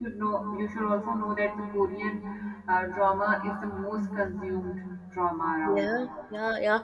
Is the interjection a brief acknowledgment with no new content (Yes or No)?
No